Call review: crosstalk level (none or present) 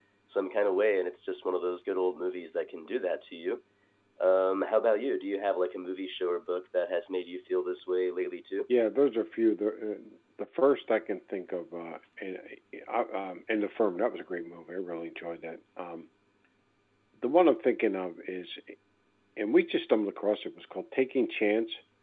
none